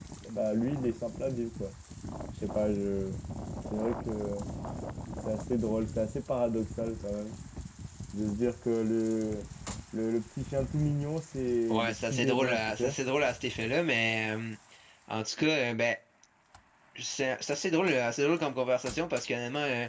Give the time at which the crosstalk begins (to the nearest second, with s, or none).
12 s